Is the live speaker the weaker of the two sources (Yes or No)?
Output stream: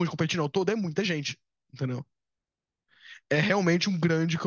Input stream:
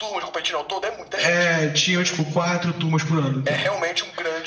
No